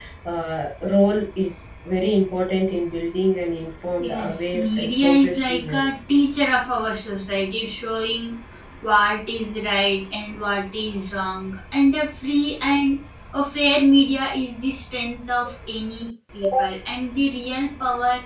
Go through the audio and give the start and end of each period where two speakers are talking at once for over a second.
4.0-5.9

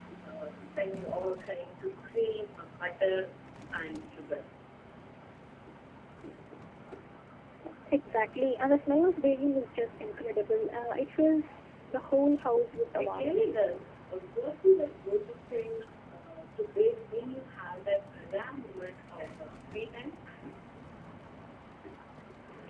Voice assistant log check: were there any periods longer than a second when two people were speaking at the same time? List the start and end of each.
none

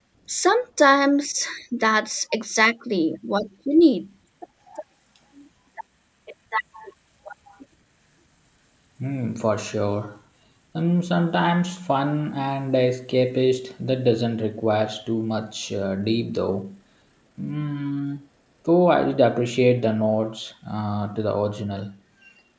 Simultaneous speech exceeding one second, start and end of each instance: none

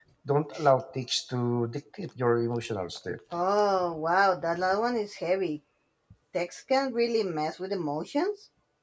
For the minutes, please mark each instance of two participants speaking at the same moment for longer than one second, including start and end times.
none

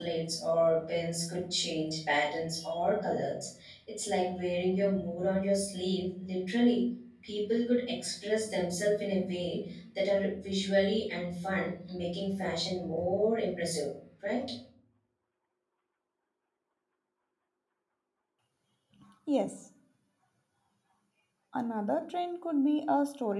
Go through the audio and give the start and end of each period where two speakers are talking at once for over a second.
none

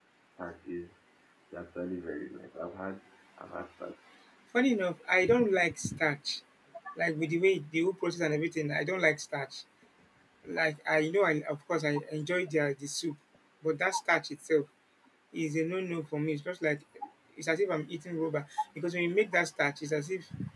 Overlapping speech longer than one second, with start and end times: none

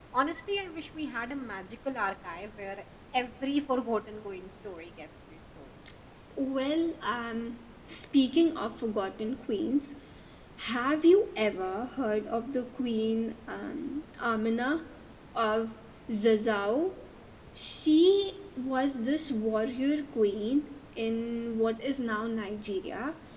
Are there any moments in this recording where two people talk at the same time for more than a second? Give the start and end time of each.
none

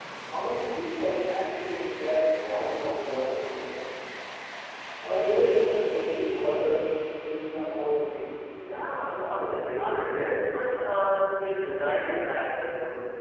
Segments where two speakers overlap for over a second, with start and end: 9.0-10.6

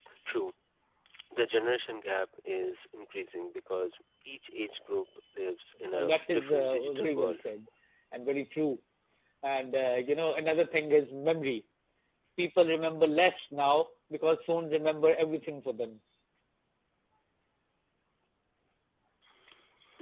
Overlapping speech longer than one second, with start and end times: 5.9-7.4

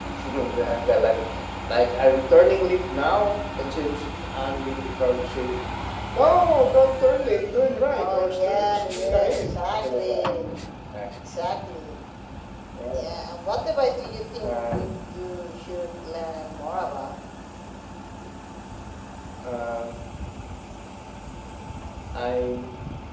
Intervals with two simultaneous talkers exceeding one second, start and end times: 7.9-10.3

